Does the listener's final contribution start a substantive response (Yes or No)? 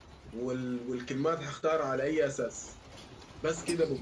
No